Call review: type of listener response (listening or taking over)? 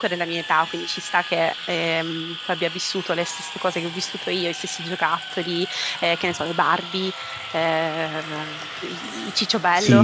taking over